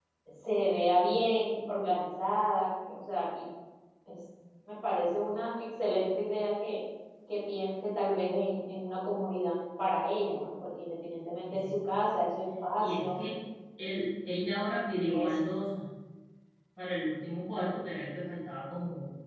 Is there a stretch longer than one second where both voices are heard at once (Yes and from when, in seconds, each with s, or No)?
No